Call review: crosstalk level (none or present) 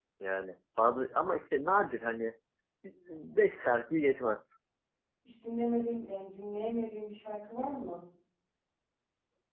none